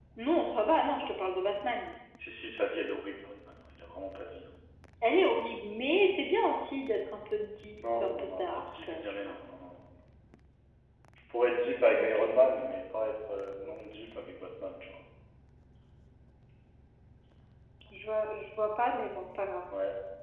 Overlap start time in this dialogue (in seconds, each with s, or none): 7.8 s